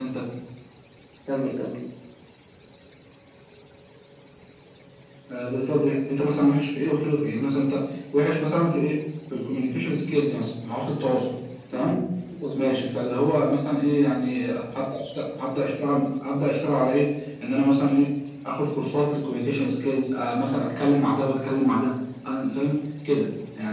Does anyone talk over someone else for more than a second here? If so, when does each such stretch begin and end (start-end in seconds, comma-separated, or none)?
none